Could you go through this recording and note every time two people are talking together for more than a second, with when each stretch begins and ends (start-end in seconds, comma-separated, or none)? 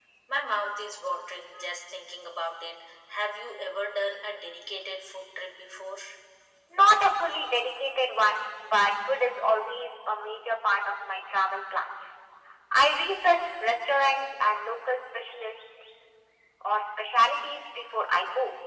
none